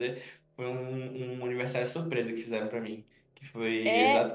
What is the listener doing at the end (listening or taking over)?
listening